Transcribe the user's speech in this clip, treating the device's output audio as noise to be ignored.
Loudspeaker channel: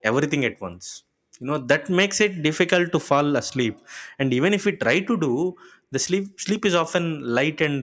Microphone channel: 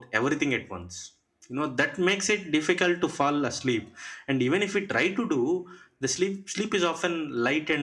none

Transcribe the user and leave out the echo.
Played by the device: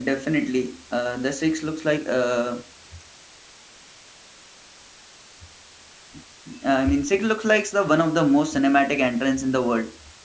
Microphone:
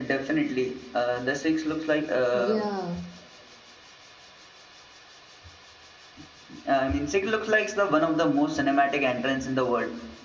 Yeah,

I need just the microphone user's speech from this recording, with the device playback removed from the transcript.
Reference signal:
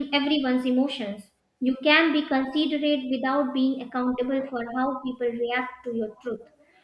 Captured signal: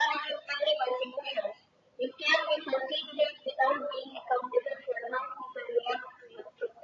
none

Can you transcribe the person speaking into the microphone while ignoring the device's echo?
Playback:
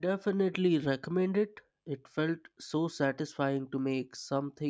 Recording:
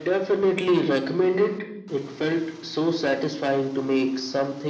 none

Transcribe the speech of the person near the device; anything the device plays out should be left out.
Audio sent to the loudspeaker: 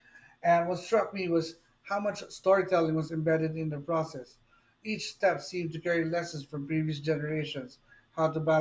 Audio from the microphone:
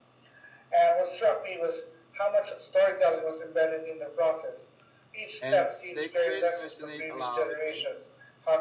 And the experience resonates a lot with me.

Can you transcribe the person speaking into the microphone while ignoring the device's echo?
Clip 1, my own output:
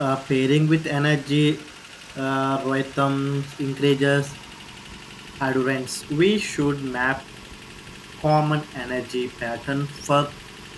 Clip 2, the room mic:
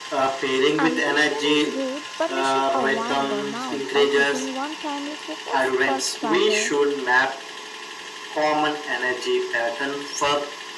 Ambition is good, but we should avoid burnout by keeping one primary focus per quarter.

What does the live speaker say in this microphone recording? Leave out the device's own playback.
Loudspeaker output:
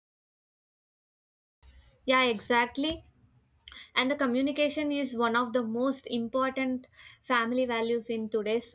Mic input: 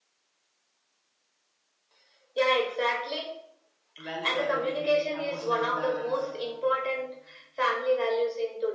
values are giving emotional balance

